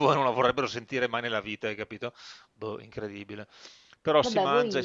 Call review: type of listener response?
listening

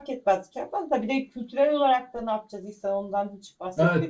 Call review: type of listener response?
taking over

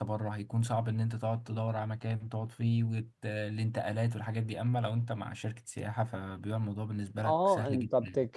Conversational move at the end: taking over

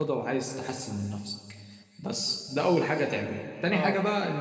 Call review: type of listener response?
listening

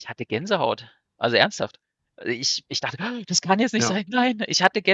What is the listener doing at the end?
listening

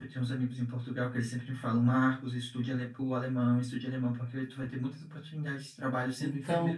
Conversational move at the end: listening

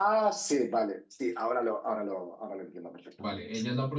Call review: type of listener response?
taking over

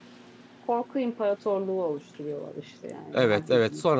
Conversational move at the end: taking over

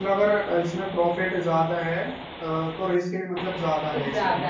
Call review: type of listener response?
taking over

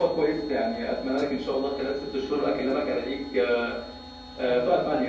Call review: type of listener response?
taking over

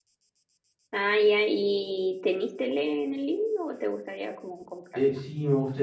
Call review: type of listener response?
taking over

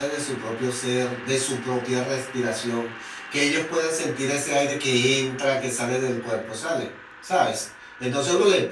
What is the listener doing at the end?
listening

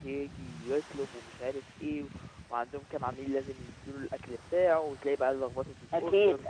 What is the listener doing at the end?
listening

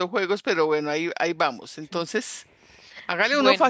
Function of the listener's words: listening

